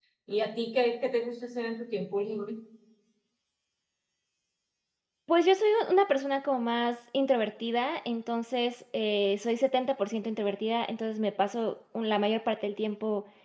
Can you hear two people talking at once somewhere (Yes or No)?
No